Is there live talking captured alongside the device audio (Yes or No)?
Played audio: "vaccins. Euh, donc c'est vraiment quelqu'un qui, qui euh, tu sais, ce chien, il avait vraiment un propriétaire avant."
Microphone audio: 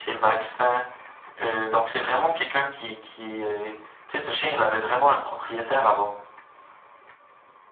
No